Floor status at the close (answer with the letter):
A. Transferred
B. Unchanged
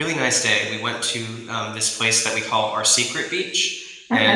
B